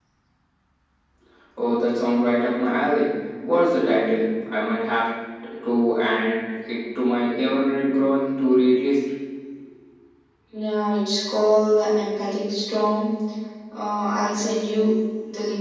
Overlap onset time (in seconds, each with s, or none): none